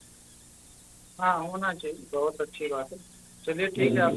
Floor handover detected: No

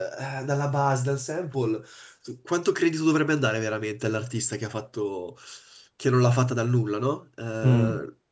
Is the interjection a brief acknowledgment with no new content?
Yes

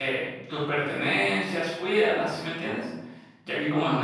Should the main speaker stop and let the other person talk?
No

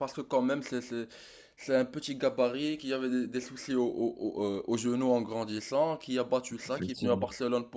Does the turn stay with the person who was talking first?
Yes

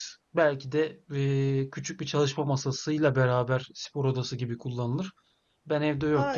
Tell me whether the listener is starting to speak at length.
No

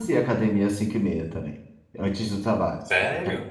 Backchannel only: No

